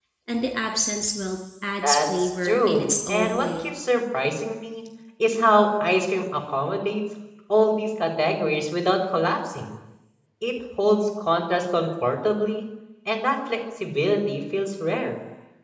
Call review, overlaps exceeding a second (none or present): present